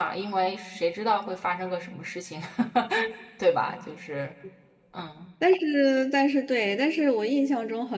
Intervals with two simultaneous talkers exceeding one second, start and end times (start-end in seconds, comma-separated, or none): none